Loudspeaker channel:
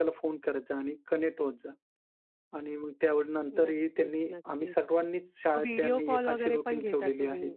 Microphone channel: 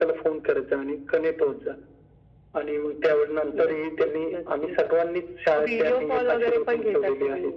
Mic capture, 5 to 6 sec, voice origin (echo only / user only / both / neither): echo only